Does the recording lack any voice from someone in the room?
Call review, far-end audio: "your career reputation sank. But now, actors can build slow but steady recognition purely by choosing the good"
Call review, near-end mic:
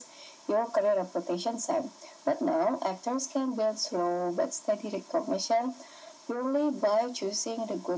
Yes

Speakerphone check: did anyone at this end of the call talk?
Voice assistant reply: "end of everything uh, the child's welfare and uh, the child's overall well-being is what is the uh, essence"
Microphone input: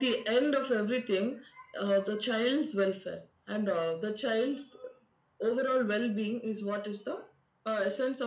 No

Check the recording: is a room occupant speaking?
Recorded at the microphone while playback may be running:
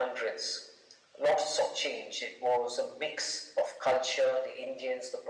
No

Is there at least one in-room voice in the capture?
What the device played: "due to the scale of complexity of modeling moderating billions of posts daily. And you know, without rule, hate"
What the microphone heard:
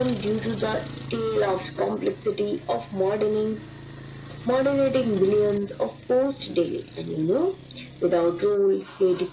No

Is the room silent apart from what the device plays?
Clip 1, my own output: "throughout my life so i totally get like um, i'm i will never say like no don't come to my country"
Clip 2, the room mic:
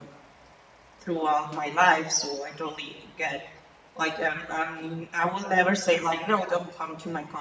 Yes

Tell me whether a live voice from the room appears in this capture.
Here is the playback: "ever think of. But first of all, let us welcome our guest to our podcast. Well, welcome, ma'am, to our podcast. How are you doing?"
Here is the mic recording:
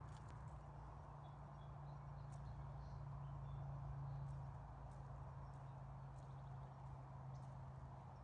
No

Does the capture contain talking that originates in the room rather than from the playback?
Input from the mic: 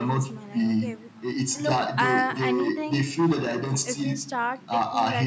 Yes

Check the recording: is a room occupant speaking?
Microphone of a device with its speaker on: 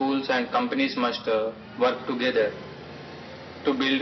No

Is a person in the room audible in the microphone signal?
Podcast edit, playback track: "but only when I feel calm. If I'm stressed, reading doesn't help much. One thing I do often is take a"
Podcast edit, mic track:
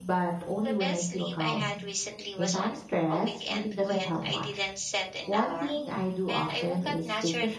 Yes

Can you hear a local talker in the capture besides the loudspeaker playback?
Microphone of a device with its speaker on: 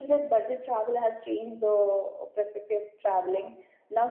No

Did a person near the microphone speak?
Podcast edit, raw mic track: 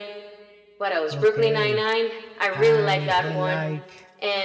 Yes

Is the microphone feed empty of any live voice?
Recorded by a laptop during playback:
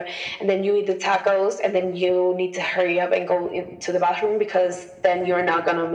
Yes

